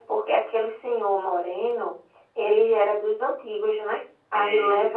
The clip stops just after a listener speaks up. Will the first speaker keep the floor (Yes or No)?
Yes